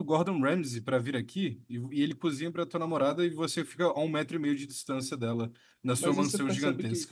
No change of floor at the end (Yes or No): No